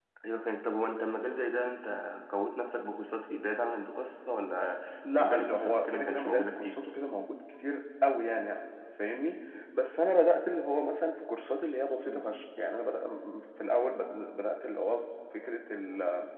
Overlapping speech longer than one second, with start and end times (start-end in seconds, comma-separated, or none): 5.2-6.7